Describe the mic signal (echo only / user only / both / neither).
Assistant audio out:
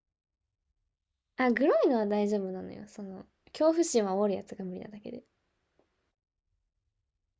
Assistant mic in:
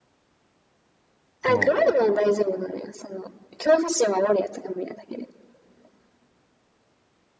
both